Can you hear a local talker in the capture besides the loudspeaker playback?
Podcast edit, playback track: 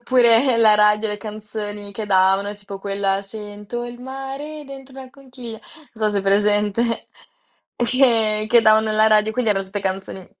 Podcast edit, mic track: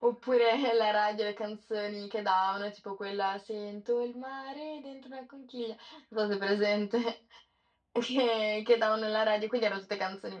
No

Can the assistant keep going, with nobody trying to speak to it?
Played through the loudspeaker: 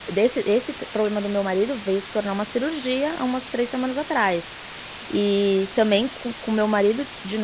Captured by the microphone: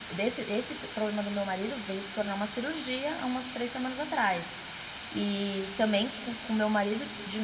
Yes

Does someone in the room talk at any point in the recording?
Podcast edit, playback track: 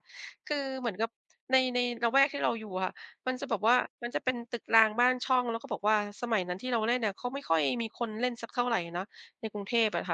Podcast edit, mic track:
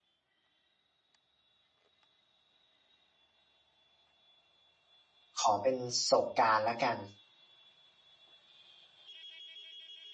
Yes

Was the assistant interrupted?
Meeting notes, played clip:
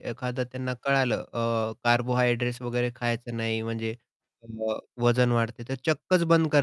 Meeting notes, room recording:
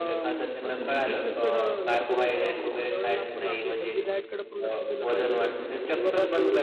Yes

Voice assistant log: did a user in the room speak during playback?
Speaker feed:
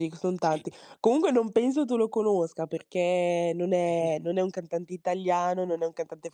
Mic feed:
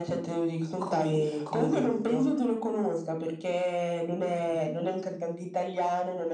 Yes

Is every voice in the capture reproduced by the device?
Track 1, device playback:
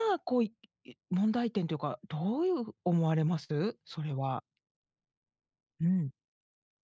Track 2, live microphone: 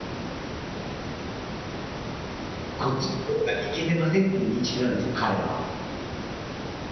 No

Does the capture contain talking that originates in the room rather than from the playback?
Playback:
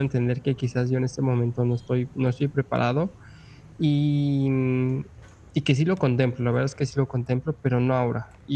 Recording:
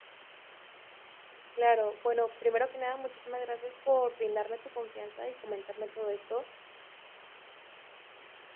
Yes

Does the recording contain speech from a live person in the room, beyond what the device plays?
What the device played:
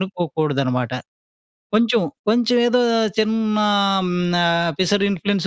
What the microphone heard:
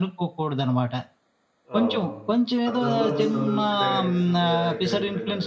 Yes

